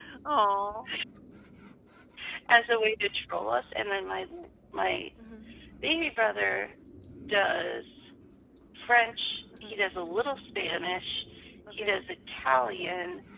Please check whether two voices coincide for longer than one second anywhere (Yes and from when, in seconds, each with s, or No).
No